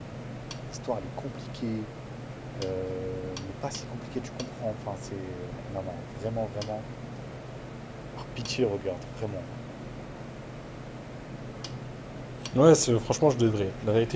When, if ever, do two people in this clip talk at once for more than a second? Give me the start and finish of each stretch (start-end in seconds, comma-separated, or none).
none